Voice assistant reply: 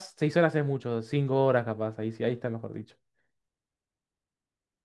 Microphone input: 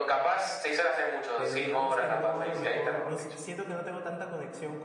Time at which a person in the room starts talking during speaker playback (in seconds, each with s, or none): 1.4 s